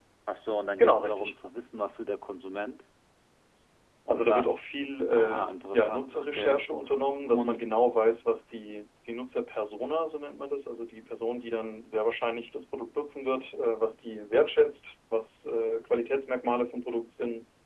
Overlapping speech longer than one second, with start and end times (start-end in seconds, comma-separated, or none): 5.1-6.6